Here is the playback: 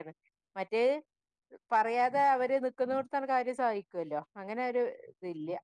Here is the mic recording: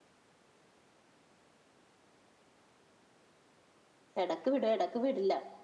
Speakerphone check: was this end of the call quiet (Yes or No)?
No